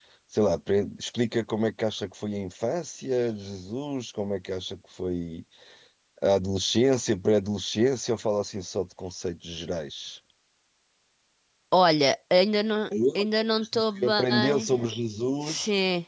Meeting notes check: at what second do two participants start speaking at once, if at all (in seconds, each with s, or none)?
13.2 s